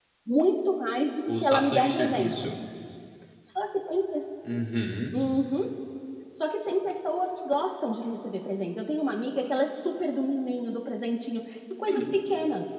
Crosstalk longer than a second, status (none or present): present